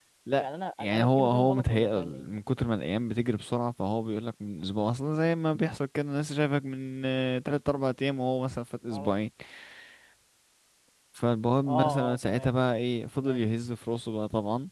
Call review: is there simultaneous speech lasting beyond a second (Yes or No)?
Yes